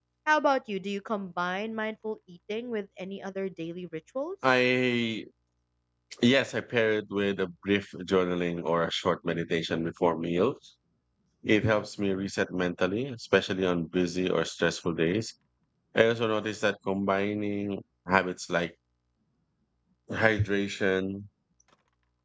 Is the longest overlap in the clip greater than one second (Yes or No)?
No